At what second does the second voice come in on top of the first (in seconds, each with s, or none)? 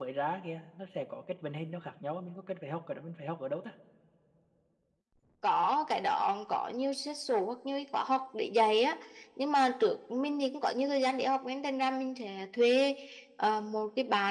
none